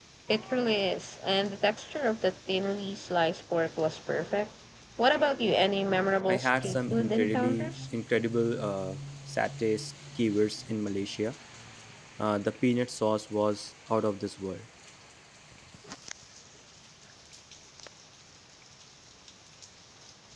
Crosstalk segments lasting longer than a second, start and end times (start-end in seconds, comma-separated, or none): 6.3-7.7